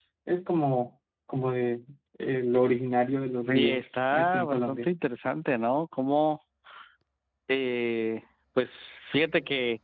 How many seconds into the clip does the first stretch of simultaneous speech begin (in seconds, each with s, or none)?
3.5 s